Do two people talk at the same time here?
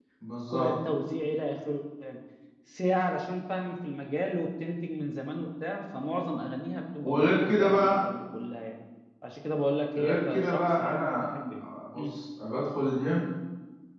Yes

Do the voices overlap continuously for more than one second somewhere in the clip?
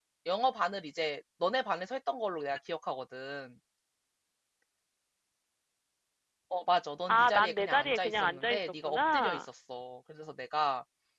Yes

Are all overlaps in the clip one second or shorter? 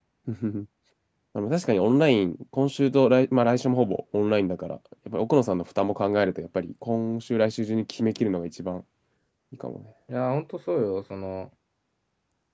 Yes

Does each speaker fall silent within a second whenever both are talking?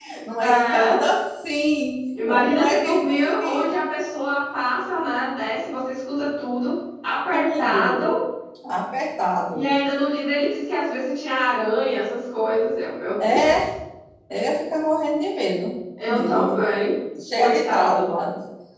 No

